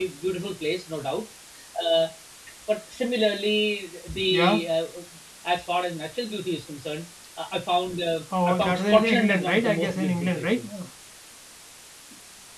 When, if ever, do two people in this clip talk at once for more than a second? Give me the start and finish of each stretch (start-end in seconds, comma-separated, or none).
8.4-10.7